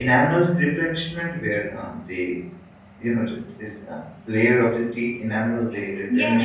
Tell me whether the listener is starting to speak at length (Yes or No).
Yes